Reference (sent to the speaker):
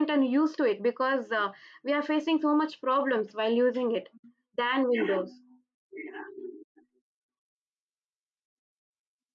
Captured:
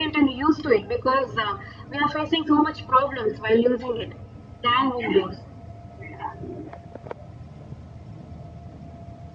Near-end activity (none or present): none